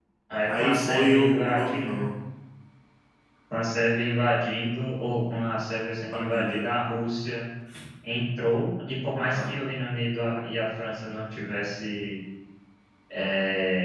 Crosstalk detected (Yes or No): Yes